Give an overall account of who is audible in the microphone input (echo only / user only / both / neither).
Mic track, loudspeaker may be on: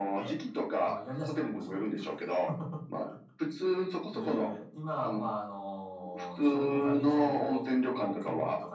echo only